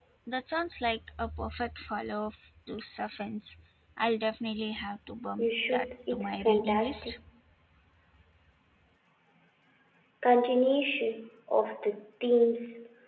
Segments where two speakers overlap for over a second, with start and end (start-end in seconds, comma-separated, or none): 5.4-7.1